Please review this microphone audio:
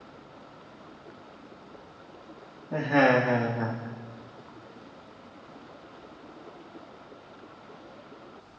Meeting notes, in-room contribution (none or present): present